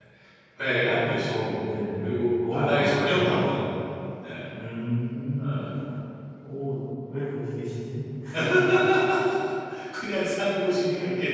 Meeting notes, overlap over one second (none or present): present